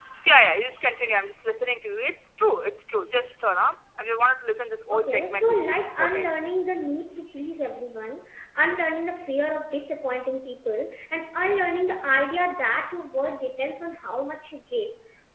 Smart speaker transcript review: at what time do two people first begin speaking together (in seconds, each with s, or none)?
4.9 s